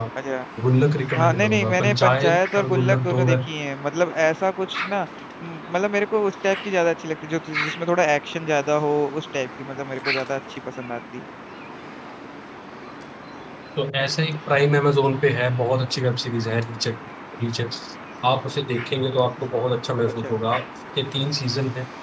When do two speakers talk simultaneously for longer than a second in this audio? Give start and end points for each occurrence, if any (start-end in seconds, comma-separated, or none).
1.2-3.5